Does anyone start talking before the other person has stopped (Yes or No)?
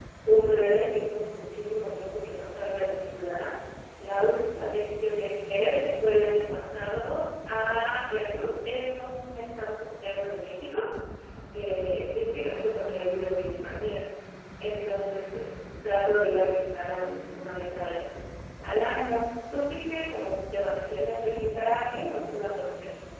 No